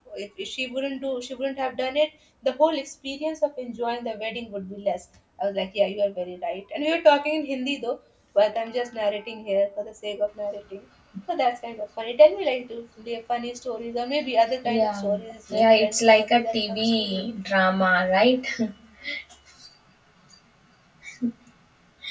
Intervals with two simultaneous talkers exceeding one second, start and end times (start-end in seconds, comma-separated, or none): 15.5-17.2